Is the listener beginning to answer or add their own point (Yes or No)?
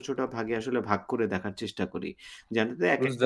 No